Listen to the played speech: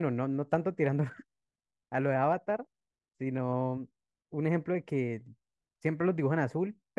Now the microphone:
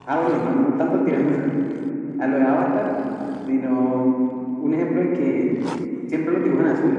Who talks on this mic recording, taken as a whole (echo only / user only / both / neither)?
echo only